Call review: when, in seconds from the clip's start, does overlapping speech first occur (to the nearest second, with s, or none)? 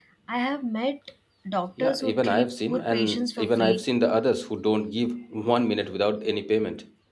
2 s